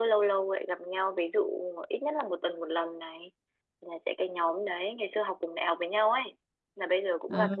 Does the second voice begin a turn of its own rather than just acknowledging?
No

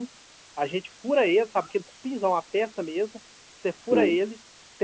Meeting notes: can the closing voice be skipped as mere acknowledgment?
Yes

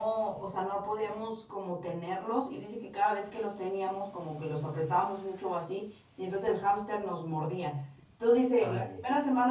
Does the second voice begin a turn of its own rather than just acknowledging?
No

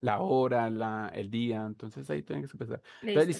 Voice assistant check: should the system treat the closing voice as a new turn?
No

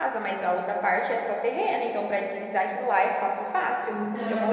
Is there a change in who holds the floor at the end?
Yes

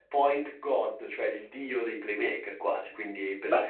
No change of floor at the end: Yes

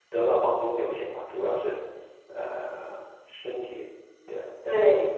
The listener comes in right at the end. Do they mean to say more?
Yes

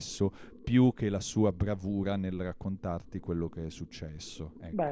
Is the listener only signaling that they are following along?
No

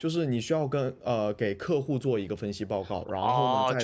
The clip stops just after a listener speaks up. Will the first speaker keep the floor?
No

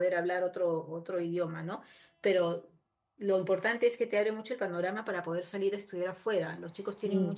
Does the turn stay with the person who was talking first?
Yes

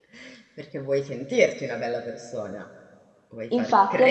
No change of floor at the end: No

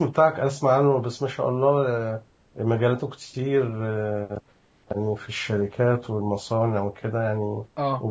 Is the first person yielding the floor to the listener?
No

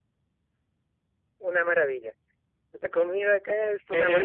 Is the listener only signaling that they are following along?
No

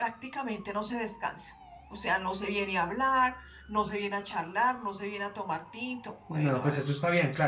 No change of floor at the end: No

